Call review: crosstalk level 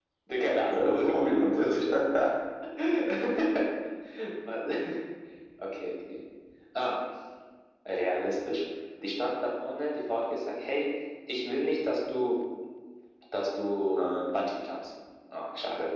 present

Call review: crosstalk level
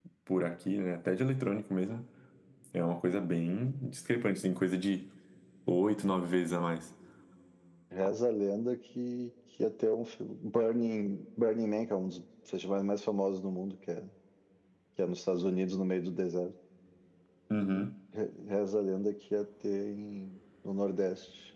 none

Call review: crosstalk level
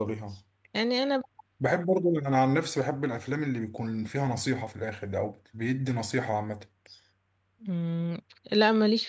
none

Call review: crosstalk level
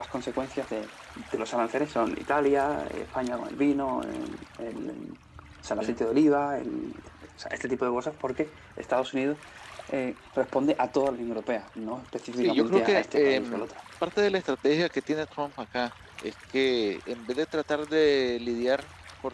present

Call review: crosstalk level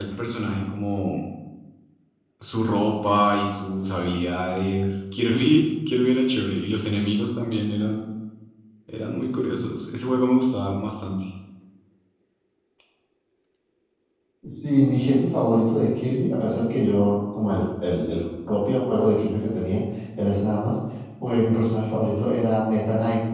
none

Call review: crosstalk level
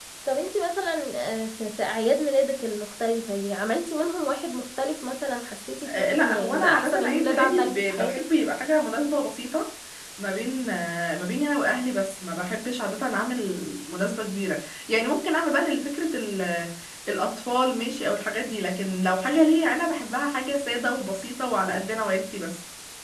present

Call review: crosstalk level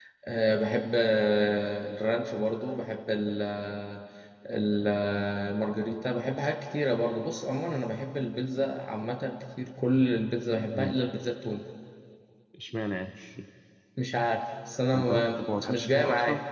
present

